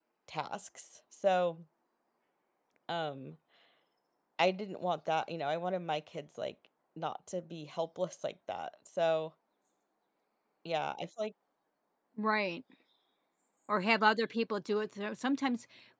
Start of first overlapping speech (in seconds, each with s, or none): none